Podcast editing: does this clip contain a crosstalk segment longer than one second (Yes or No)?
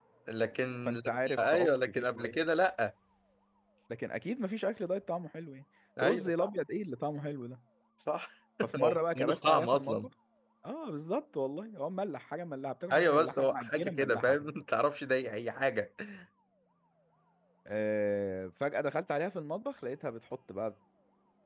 Yes